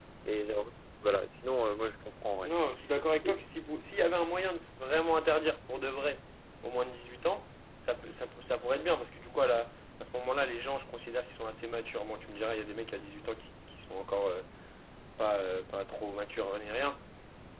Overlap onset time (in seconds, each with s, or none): none